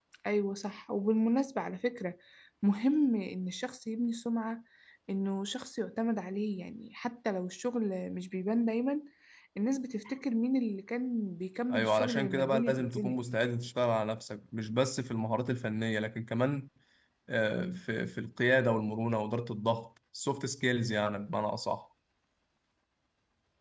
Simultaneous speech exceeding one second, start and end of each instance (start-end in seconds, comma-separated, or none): 11.7-13.2